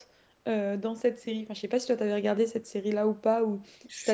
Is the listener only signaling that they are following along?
No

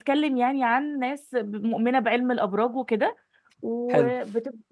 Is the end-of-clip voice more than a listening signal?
No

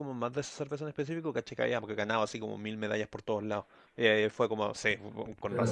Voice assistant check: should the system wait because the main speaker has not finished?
No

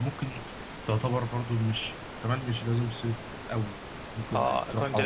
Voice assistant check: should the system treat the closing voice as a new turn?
Yes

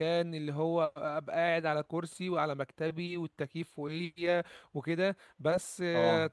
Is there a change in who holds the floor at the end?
No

